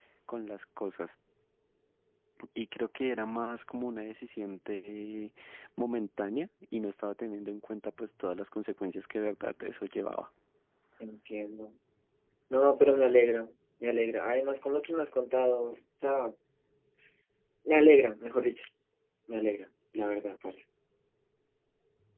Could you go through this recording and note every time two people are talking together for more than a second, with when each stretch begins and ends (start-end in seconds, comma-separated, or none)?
none